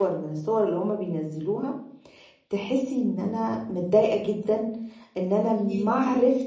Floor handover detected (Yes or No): No